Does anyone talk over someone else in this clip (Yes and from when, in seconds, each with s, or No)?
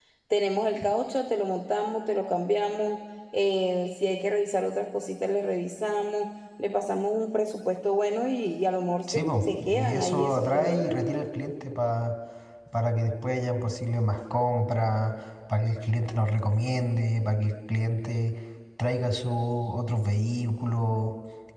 Yes, from 9.1 s